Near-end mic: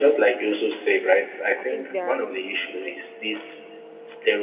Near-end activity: present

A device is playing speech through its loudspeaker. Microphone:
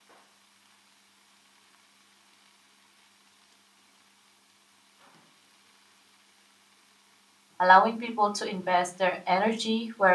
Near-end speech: present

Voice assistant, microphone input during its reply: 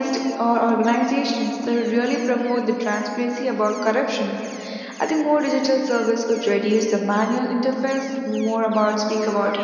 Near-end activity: none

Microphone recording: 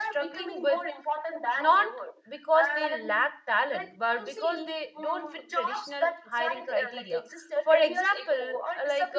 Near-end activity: present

